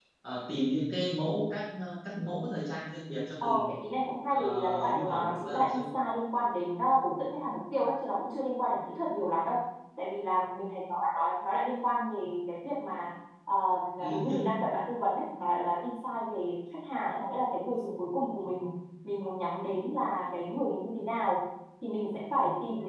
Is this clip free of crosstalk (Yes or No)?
No